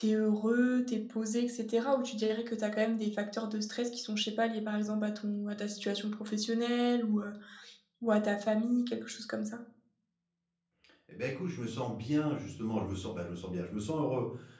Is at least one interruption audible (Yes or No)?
No